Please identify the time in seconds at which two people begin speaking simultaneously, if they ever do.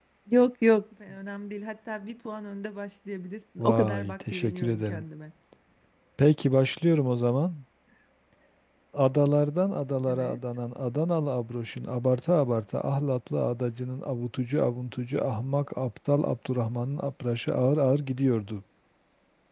3.6 s

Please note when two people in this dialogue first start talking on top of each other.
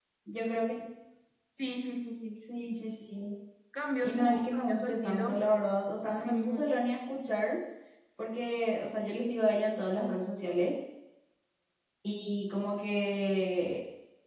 4.0 s

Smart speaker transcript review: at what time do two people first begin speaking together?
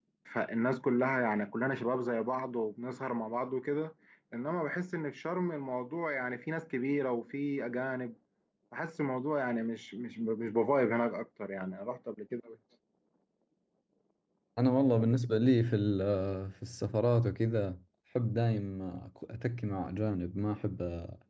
none

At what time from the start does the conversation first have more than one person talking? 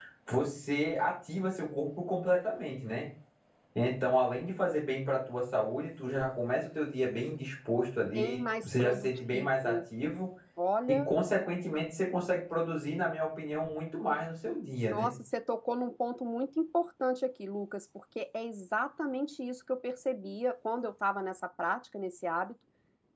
8.2 s

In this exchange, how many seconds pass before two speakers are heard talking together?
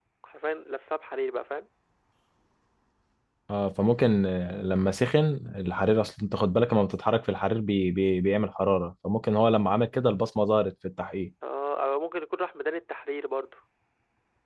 none

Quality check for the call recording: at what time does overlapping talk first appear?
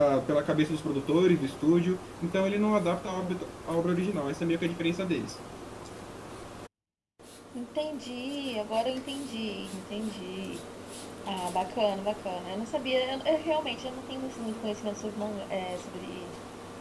none

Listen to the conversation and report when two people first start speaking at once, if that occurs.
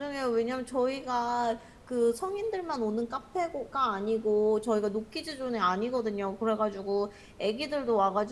none

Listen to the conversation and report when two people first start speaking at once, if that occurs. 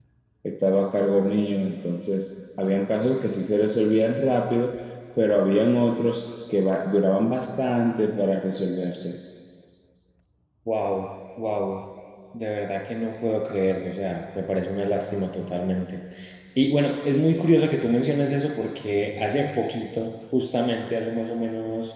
none

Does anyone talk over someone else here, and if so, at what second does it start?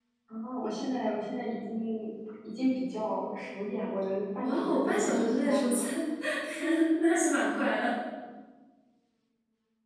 4.4 s

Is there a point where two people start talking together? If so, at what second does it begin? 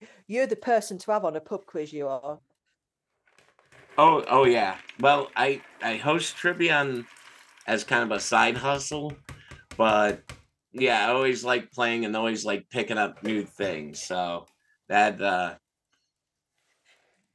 none

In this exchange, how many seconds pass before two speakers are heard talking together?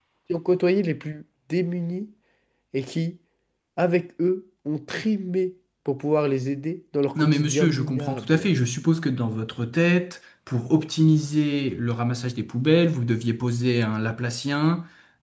7.2 s

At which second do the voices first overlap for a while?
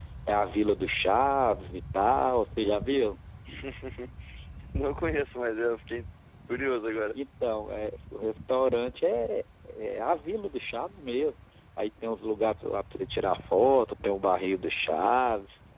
none

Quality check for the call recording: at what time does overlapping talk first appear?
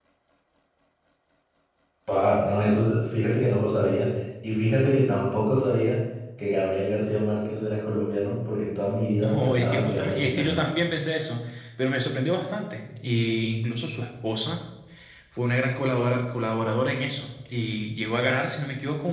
9.2 s

